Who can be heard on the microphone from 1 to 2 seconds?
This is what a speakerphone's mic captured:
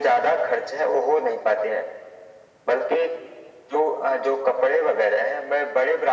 echo only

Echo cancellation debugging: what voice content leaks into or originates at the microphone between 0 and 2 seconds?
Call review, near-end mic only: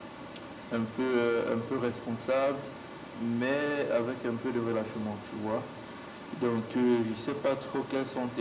echo only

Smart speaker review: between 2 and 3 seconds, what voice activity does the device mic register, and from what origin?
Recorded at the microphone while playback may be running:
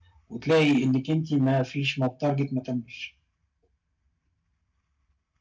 user only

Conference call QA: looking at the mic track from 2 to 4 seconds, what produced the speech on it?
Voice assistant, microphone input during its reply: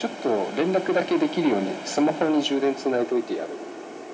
echo only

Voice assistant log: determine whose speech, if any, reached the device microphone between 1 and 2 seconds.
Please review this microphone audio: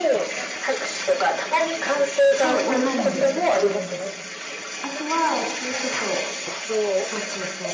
echo only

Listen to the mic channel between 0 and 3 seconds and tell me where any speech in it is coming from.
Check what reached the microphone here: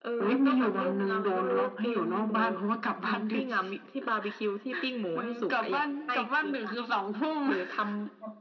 echo only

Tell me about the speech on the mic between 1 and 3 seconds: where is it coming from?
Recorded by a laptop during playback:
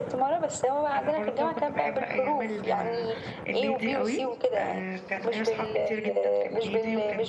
both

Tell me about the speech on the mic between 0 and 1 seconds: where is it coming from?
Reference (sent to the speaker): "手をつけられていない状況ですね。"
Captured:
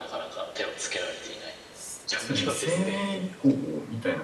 echo only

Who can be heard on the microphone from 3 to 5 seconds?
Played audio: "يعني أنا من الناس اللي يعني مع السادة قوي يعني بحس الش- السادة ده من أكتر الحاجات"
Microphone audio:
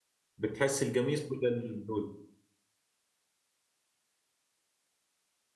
neither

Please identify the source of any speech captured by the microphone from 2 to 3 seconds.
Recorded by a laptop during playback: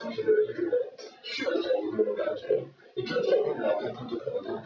echo only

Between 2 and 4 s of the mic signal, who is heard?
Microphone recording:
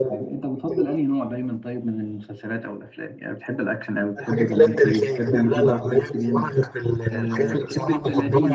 user only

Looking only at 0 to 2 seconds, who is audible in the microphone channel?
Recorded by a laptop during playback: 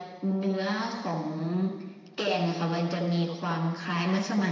echo only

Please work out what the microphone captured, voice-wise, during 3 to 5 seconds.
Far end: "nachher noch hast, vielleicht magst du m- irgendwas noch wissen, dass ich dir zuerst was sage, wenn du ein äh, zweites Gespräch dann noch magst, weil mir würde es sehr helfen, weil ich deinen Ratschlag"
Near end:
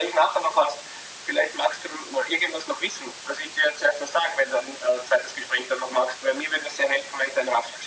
echo only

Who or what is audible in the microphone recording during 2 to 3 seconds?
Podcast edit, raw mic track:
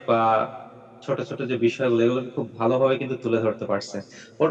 echo only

